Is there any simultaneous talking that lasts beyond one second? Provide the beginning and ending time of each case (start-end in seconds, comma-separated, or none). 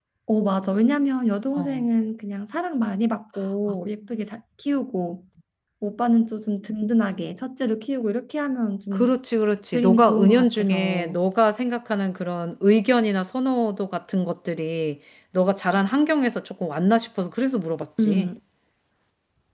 9.7-11.2